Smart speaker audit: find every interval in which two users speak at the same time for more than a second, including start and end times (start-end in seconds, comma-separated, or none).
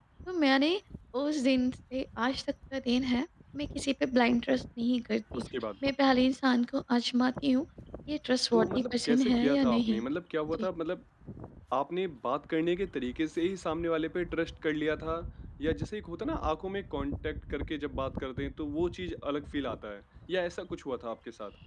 8.5-10.0